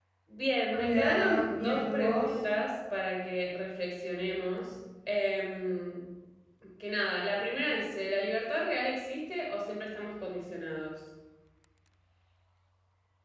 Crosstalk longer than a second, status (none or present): present